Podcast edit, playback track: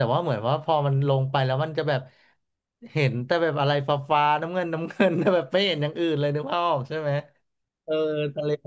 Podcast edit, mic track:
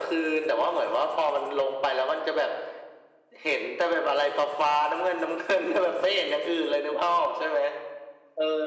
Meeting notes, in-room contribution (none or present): none